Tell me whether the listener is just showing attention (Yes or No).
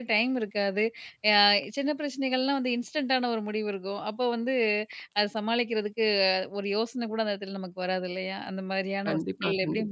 Yes